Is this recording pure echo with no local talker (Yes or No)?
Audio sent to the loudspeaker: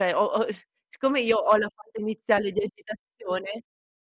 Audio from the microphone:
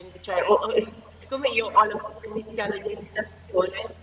Yes